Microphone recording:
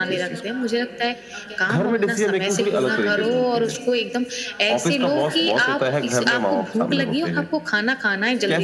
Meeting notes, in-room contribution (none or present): present